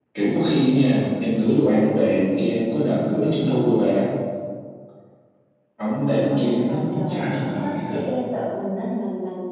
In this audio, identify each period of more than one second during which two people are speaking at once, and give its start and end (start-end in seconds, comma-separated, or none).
6.0-8.1